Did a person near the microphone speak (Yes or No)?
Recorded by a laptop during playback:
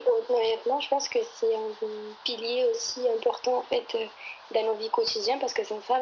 No